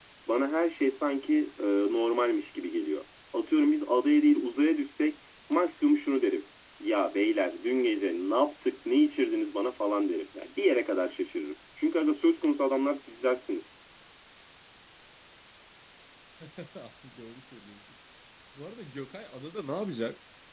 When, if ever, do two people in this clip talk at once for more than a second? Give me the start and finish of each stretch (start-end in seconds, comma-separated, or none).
none